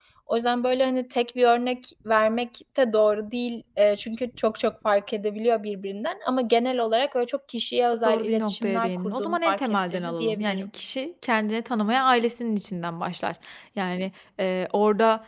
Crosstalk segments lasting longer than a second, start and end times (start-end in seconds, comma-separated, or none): 8.0-10.7